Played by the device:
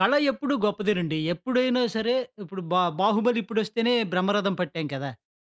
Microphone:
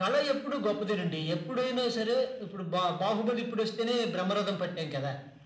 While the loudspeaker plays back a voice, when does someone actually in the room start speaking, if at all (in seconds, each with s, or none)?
none